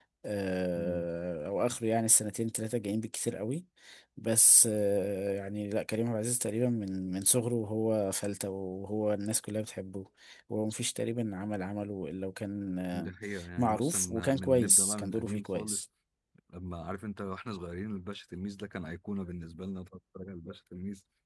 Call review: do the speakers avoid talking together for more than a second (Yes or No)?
No